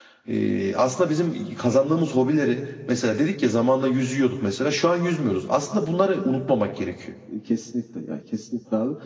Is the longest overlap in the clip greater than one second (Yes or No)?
No